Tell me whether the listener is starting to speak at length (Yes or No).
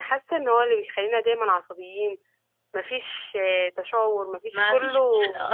Yes